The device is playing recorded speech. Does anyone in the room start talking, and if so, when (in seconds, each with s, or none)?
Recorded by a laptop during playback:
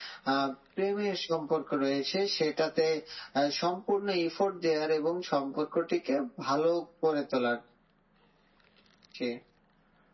none